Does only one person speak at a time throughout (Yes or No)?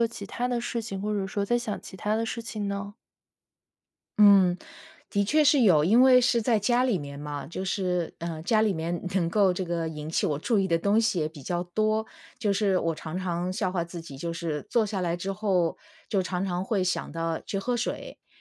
Yes